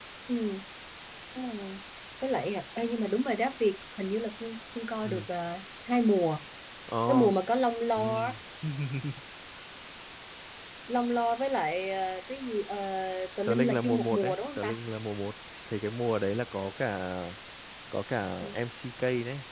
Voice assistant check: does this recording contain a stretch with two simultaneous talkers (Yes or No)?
Yes